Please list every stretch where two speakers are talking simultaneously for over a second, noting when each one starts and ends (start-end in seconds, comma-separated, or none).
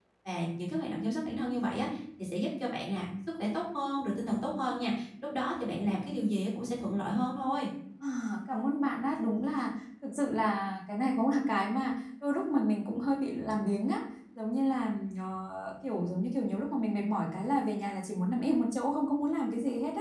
none